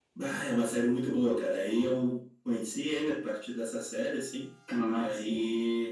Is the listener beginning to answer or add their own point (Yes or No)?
No